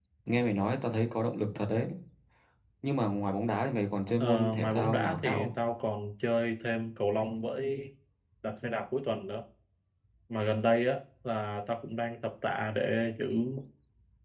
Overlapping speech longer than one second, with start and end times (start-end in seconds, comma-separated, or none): 4.2-5.5